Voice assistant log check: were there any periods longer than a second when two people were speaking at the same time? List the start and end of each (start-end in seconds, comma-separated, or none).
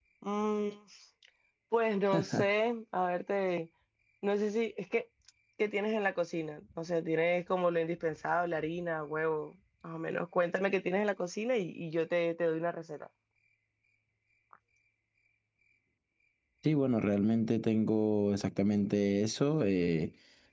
none